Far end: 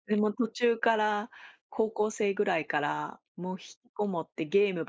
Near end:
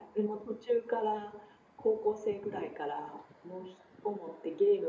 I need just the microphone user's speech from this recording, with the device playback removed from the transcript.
none

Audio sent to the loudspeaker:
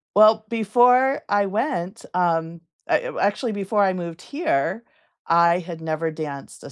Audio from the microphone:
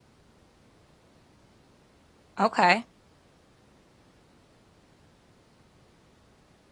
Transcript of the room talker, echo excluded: Okay.

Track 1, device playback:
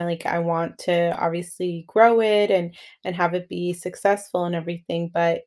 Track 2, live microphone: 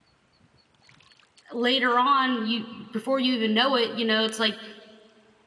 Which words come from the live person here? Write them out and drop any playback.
th later on, you before you even know it, you know, it's, like,

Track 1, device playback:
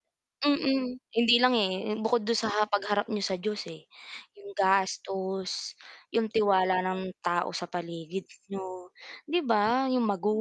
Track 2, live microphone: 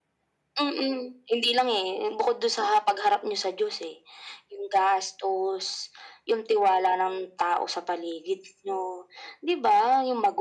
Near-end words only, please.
none

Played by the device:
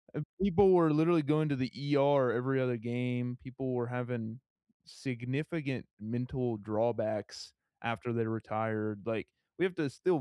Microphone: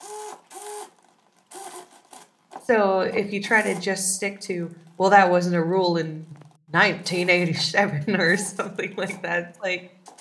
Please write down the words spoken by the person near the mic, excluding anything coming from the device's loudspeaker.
so if you try to just stick to, "Well, that wasn't a rule in 1987," or something like that. It's like,

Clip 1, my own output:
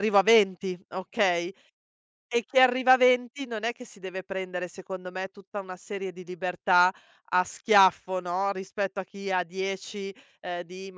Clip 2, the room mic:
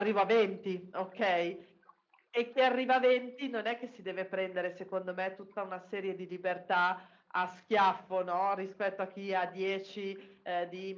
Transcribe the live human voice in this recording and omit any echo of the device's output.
none

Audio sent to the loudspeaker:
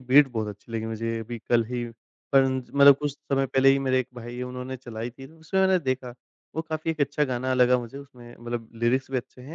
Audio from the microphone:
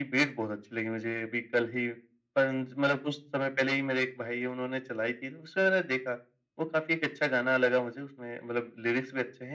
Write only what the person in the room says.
none

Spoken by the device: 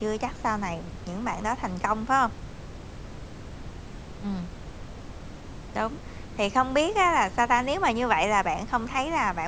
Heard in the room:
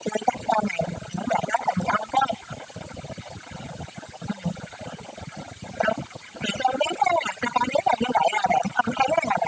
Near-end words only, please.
none

